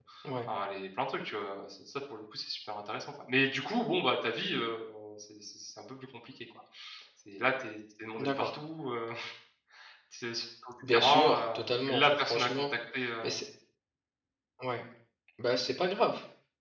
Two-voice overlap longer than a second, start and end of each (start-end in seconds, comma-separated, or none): 10.9-12.6